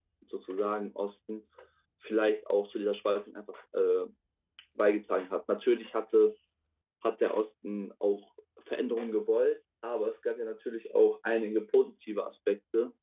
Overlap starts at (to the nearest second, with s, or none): none